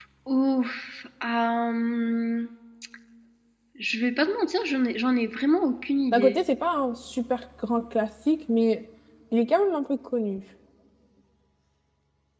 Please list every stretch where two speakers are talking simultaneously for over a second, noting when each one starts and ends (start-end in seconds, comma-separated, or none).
none